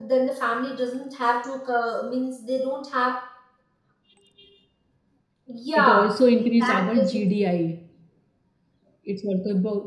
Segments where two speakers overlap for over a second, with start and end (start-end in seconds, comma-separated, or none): 5.8-7.3